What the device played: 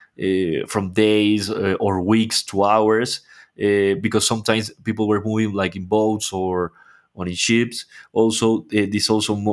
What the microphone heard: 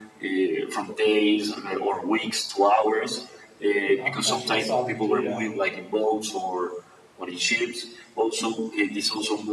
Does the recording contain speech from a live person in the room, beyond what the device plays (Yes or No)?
Yes